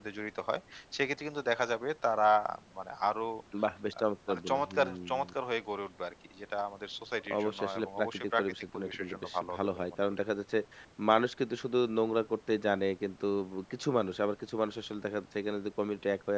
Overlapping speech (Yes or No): Yes